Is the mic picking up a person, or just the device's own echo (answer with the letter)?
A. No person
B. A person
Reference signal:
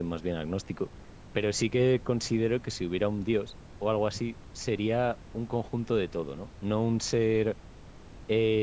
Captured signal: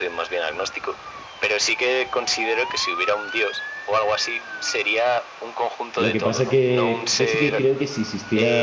B